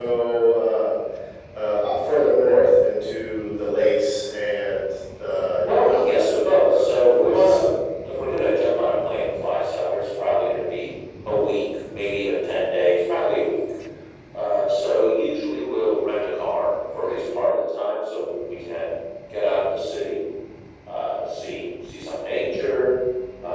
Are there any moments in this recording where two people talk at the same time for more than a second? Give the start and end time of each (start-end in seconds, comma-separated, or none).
5.6-7.6